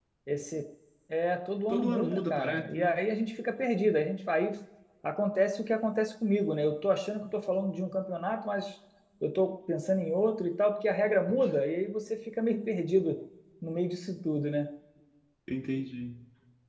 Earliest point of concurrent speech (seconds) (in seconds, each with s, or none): 1.7 s